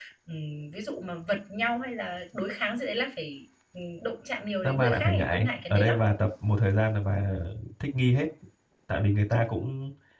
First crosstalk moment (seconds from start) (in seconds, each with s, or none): 4.6 s